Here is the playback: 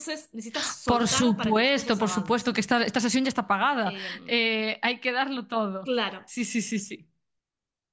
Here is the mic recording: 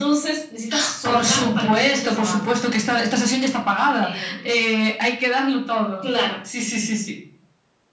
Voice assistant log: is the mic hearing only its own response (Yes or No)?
Yes